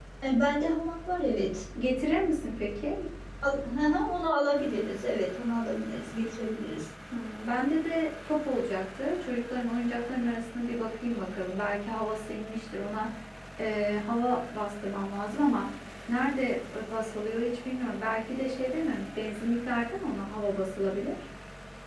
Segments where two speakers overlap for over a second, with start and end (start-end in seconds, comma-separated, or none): none